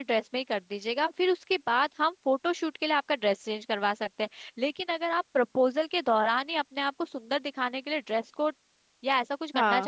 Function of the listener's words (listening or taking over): listening